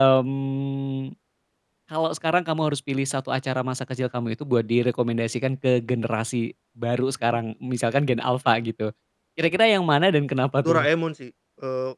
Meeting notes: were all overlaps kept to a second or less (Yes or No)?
Yes